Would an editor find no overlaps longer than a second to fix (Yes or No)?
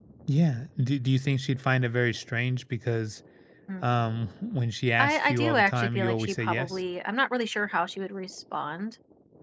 No